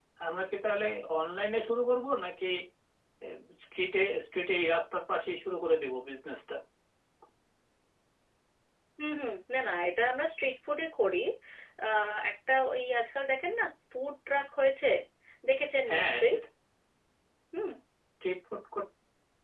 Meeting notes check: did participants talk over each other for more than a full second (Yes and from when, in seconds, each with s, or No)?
No